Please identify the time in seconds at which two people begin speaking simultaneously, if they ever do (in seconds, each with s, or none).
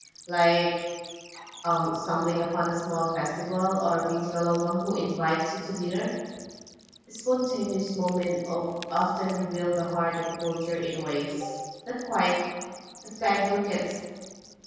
none